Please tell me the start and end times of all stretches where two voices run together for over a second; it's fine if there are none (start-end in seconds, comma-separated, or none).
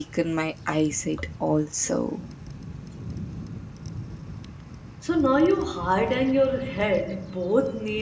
none